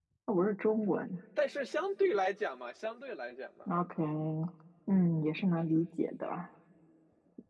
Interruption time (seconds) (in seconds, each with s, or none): none